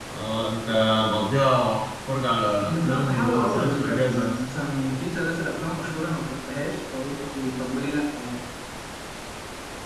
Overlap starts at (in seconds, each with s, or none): 2.6 s